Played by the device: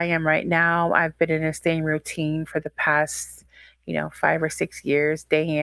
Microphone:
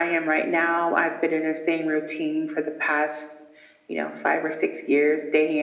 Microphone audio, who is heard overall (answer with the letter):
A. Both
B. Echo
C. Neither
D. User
B